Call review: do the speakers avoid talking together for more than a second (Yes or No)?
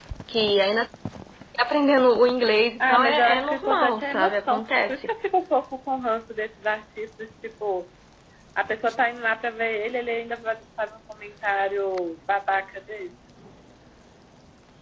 No